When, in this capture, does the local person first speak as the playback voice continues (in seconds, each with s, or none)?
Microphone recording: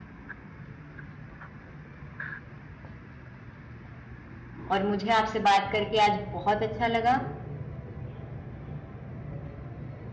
4.7 s